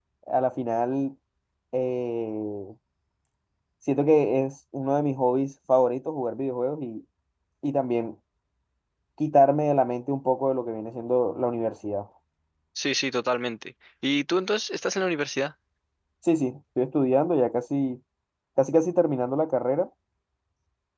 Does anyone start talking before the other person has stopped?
No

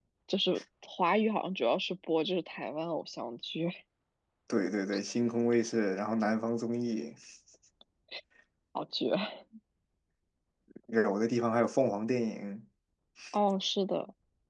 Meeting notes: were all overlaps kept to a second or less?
Yes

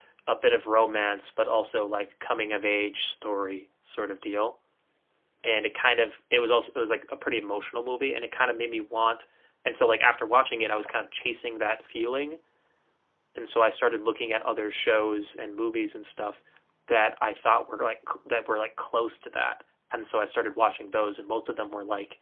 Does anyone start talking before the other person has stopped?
No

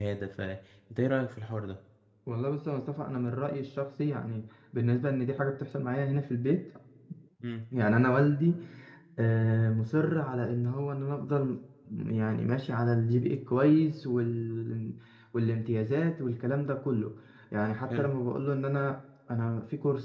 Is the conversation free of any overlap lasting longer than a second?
Yes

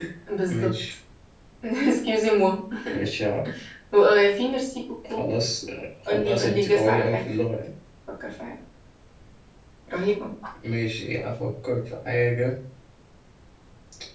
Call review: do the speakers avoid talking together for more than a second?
No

